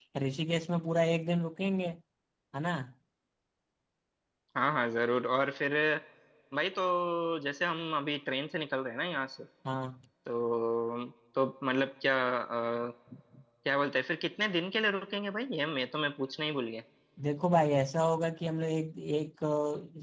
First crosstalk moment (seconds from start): none

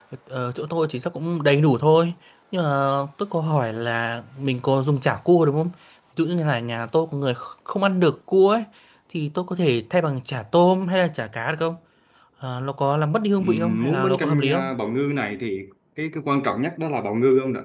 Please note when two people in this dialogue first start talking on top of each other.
13.4 s

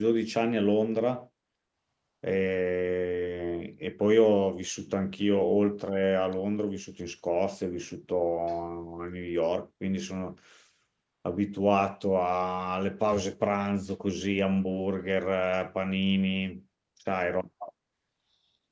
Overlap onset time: none

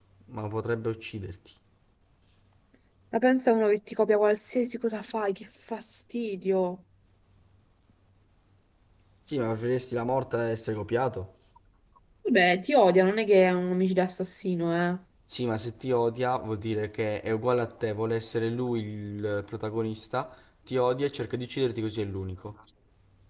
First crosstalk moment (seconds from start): none

